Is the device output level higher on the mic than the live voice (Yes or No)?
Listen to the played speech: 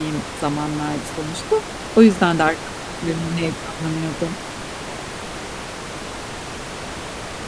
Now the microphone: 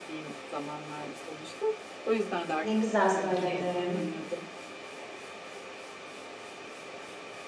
No